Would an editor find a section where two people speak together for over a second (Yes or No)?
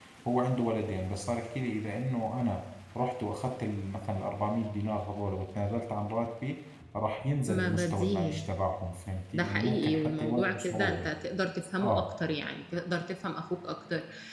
Yes